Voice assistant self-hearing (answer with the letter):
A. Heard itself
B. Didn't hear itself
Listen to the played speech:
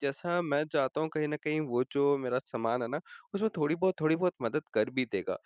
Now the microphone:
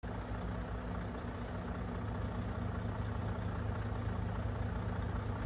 B